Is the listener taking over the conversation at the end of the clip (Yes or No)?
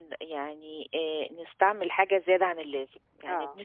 No